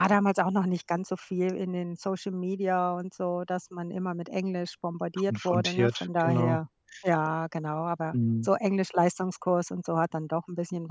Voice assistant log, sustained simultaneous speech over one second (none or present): present